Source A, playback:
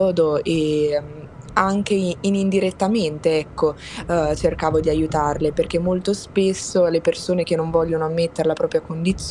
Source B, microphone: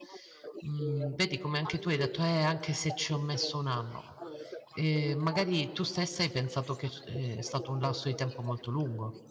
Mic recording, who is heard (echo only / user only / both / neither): both